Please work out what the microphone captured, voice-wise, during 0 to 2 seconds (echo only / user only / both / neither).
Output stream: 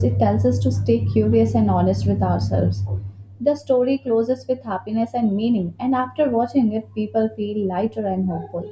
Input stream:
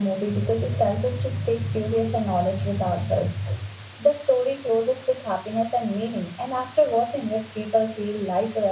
echo only